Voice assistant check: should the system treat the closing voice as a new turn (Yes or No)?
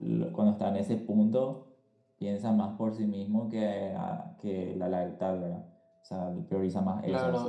Yes